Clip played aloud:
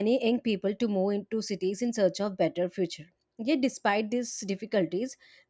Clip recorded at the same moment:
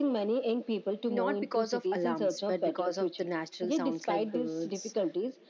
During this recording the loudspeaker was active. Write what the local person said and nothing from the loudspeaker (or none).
not because of alarms, but because of the natural sounds like birds